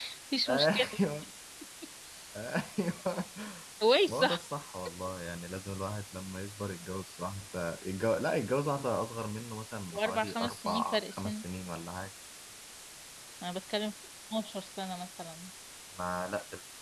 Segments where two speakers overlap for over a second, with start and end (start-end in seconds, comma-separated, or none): 9.9-11.4